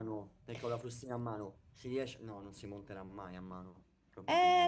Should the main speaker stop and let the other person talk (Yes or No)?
Yes